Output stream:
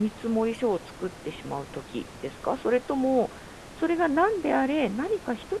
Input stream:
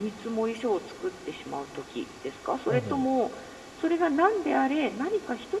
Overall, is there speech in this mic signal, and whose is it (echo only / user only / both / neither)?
both